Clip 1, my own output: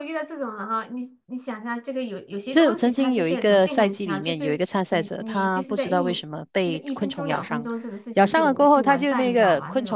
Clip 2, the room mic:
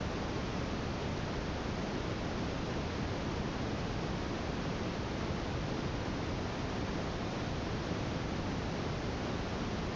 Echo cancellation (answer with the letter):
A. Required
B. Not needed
B